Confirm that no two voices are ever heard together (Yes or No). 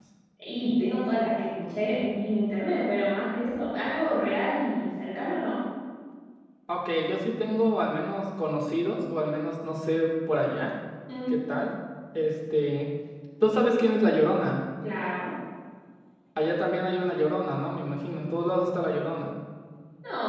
Yes